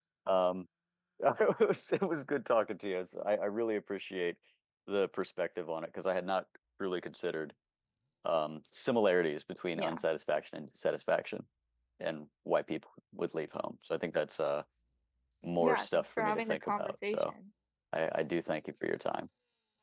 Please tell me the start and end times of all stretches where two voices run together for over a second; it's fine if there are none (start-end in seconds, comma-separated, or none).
15.6-17.3